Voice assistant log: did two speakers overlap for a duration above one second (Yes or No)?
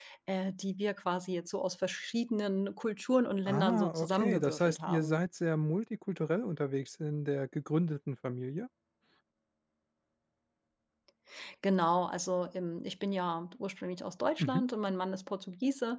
Yes